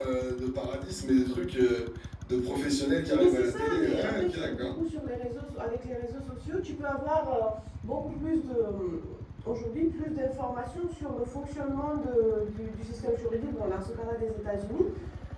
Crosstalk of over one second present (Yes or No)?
Yes